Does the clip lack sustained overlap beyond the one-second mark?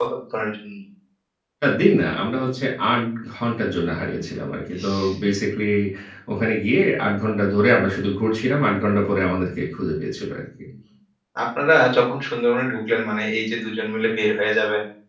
Yes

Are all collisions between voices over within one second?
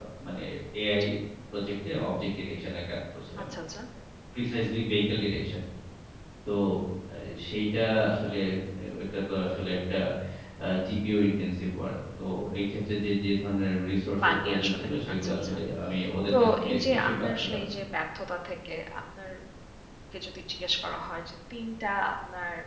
No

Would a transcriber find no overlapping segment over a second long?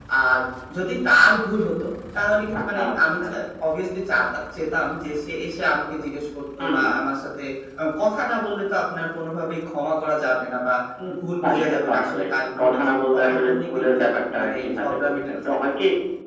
No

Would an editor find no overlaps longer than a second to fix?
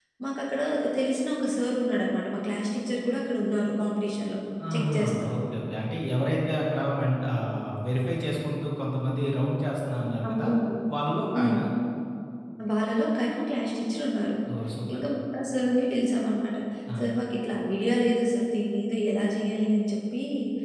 Yes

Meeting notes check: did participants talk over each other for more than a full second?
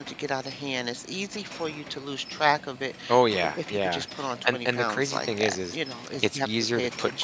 Yes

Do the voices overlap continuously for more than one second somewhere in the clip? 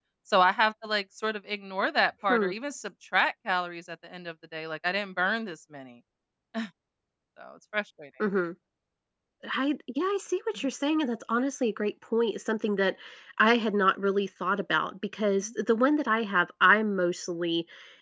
No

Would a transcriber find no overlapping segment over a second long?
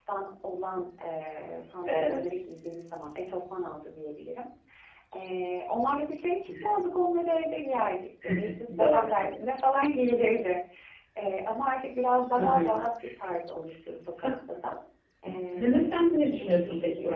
No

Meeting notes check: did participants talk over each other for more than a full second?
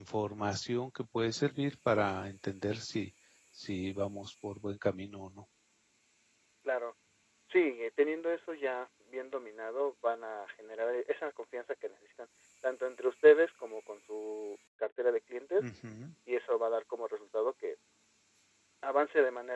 No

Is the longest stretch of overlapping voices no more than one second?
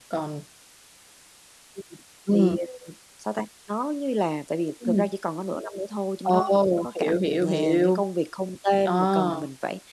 No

